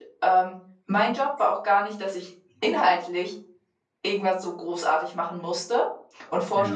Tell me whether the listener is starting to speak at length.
No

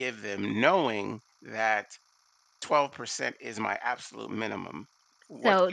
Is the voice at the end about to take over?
Yes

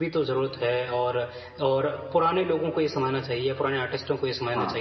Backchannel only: Yes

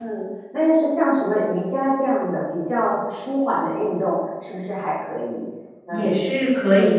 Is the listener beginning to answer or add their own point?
Yes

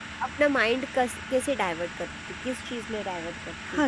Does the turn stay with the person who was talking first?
No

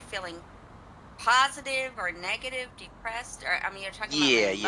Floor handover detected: Yes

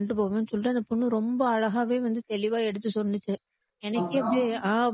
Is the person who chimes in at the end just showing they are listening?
Yes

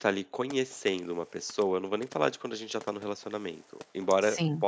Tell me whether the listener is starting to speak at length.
No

